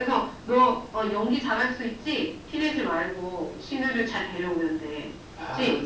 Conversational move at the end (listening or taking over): taking over